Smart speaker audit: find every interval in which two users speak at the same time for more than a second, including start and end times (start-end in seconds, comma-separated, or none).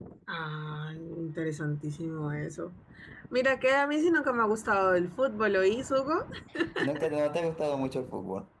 none